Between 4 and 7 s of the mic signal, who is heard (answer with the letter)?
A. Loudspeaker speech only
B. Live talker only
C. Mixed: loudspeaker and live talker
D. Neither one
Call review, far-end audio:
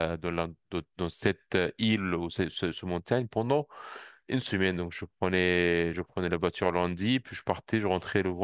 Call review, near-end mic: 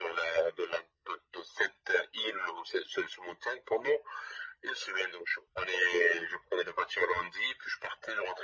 A